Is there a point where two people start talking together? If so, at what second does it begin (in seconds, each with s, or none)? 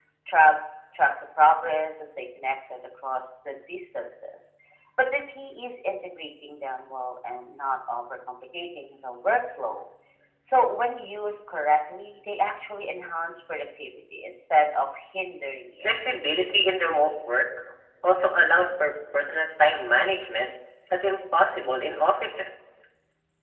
none